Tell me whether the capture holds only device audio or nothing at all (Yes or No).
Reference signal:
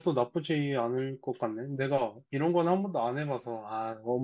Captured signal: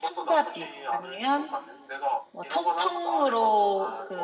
No